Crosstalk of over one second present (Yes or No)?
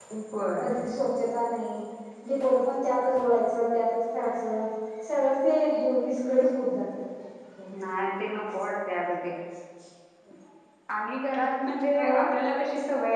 No